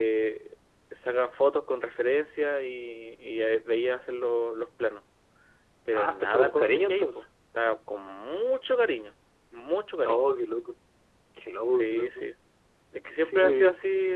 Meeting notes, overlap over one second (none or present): present